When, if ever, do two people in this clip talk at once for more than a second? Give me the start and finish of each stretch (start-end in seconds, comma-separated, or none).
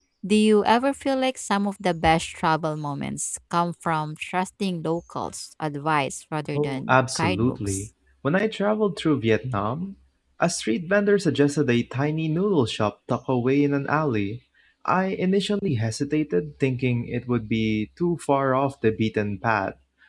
6.6-7.9